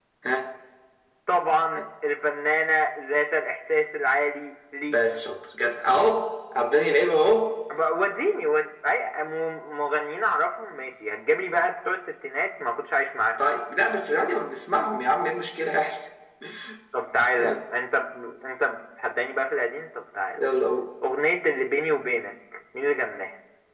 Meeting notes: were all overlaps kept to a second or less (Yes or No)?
Yes